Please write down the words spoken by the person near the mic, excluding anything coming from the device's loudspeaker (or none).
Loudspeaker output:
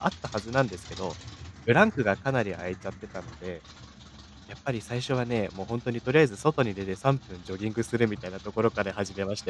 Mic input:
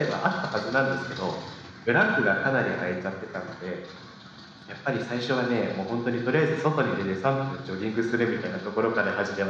none